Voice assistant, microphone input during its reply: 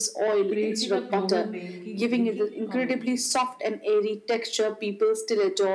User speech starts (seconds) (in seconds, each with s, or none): 0.5 s